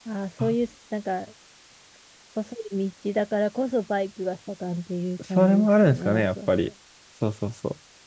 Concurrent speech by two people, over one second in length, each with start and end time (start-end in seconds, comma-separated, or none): 5.2-6.7